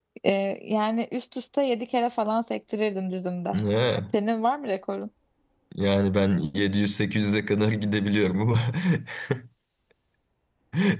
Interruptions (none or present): none